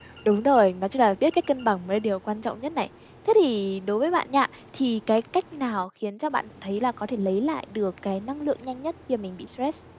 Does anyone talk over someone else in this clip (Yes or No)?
No